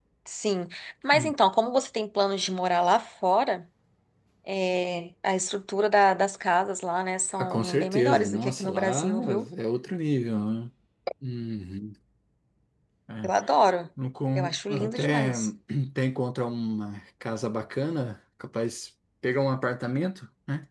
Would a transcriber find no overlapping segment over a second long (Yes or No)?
No